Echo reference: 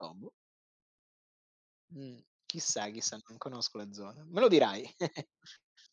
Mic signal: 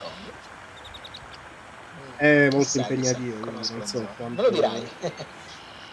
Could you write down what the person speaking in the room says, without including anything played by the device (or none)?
eh, molto impegnative, quindi non so quanto